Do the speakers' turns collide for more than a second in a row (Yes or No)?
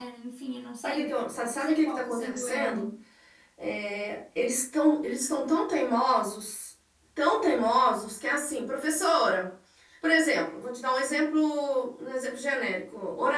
Yes